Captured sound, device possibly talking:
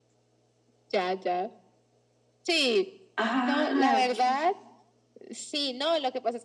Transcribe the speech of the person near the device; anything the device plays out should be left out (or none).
Ah, ok.